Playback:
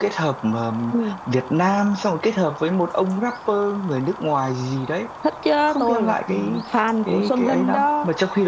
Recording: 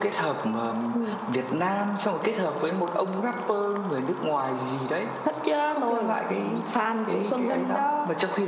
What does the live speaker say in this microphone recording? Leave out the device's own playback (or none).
none